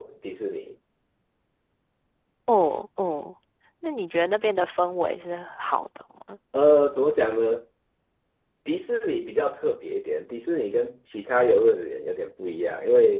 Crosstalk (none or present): none